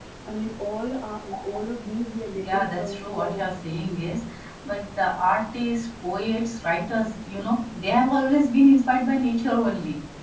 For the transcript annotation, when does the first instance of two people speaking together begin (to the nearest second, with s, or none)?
2 s